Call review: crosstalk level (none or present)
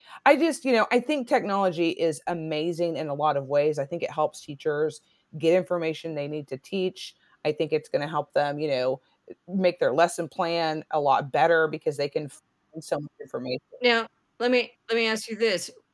none